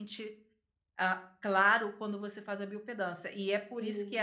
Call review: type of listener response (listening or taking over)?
listening